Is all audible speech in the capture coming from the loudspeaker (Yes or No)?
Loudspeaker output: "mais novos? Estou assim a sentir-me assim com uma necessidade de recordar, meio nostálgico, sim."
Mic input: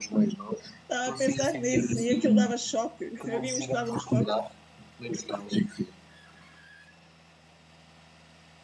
No